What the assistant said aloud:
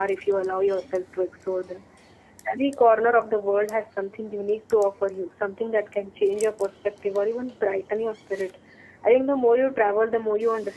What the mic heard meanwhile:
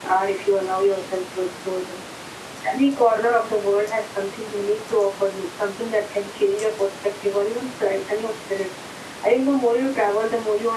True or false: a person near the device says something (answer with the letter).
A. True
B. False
B